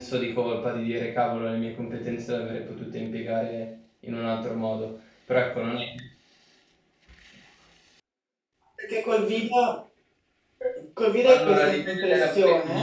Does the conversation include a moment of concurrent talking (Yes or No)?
Yes